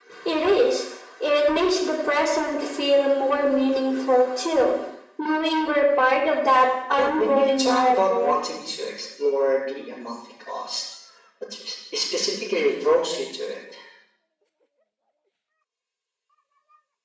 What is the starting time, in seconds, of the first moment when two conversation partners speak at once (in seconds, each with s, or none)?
7.0 s